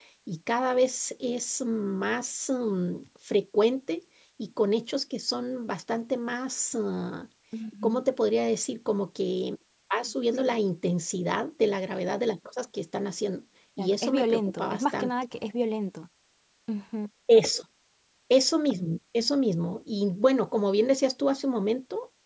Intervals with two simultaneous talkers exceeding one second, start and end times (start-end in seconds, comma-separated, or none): 13.8-15.1